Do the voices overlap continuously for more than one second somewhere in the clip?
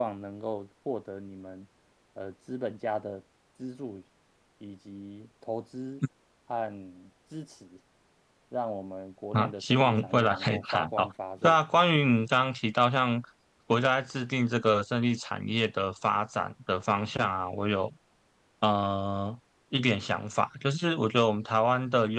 Yes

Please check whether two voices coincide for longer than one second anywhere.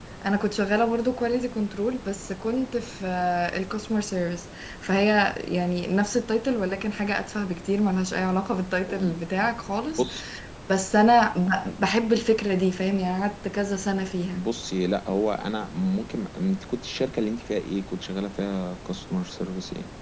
No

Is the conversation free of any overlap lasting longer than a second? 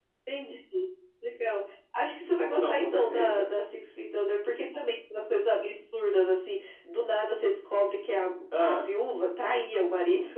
No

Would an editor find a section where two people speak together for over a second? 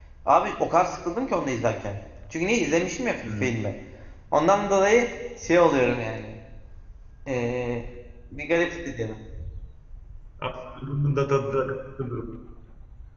No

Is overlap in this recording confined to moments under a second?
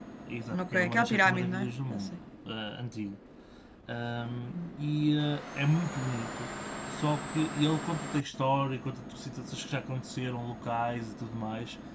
No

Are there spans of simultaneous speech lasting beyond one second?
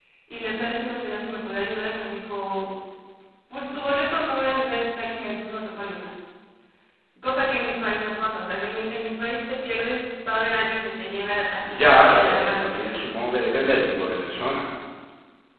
Yes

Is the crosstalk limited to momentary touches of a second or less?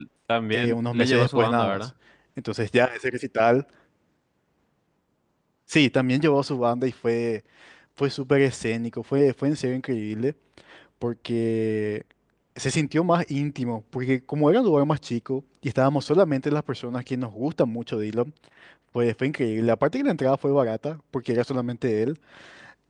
No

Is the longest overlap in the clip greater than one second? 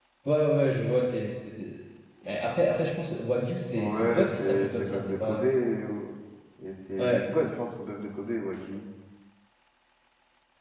Yes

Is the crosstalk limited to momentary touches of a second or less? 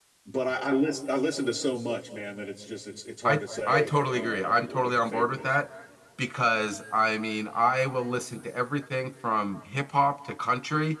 No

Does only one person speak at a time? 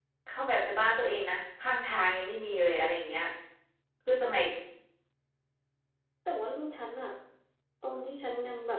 Yes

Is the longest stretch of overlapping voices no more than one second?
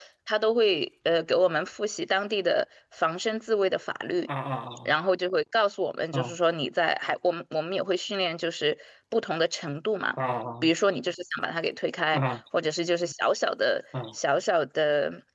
Yes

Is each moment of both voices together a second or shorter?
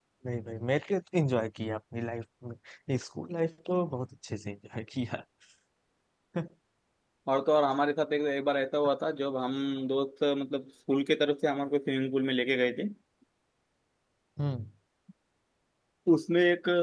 Yes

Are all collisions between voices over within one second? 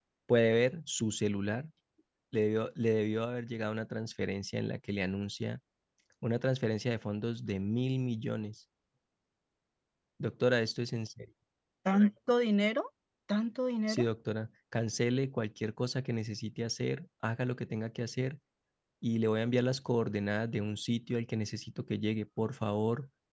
Yes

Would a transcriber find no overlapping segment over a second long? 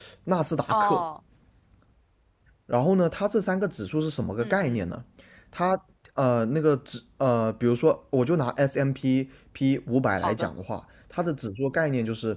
Yes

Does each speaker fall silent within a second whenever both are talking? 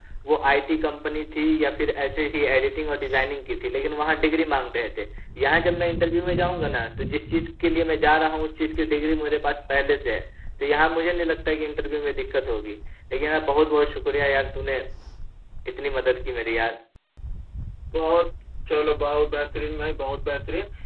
Yes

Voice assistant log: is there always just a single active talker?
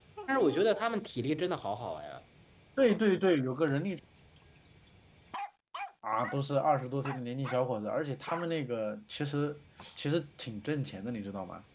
Yes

